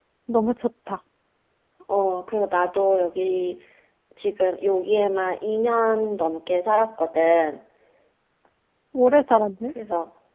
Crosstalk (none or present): none